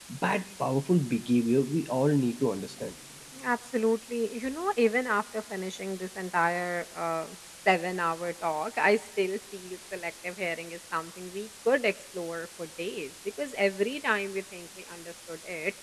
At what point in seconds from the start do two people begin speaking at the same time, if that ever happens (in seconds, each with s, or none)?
none